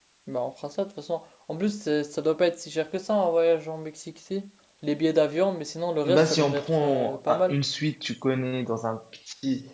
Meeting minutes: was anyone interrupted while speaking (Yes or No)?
Yes